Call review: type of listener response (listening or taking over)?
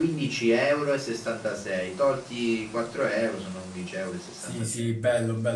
taking over